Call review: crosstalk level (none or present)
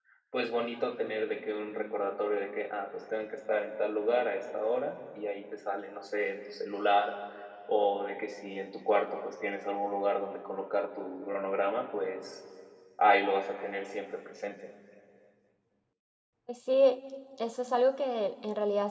none